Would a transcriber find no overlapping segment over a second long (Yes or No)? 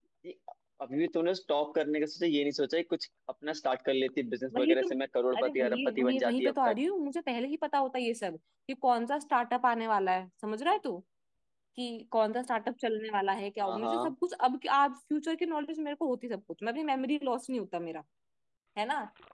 No